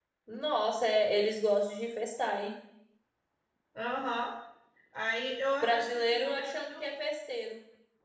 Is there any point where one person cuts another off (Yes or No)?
Yes